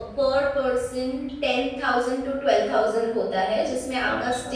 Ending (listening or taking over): listening